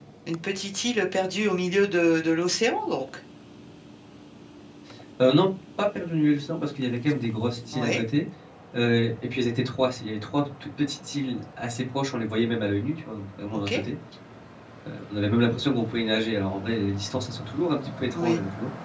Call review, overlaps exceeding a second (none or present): none